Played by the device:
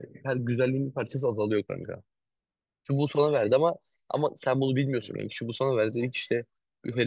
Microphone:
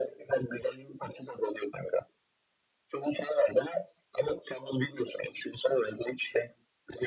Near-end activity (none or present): none